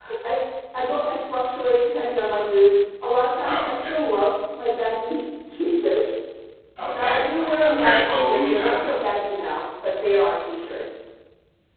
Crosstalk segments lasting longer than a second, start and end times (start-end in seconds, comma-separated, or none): 6.9-8.9